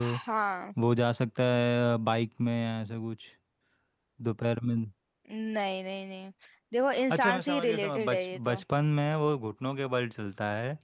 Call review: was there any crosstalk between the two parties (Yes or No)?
Yes